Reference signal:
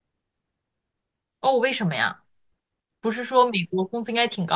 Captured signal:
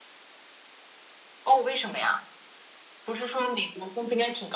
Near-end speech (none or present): none